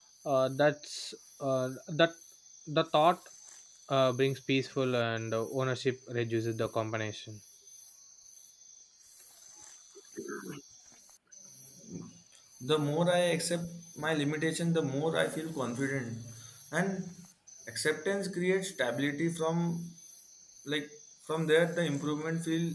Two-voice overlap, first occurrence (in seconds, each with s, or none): none